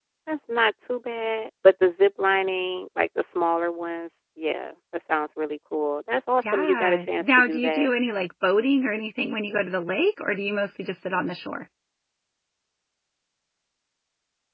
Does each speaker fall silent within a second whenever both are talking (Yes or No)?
No